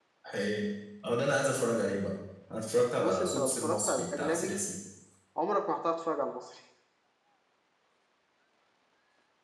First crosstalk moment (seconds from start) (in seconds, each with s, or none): 3.0 s